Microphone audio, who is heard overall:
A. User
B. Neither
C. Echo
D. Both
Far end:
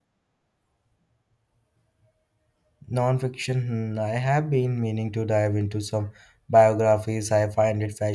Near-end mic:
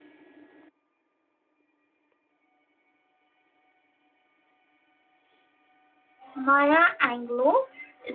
A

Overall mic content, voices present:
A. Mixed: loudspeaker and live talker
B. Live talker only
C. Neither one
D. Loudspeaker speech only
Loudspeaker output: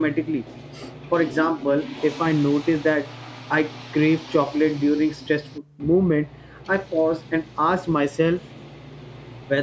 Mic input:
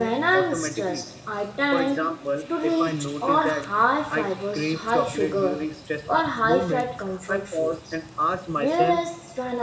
A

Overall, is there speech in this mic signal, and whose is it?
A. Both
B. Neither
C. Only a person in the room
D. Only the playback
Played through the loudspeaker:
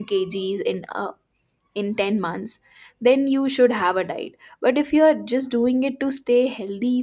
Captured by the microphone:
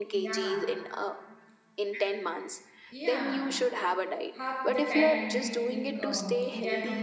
A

